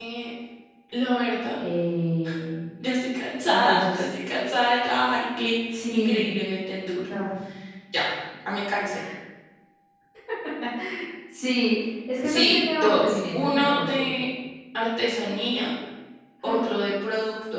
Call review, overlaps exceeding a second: present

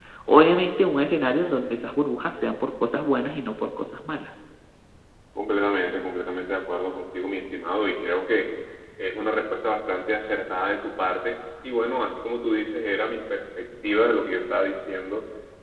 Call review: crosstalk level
none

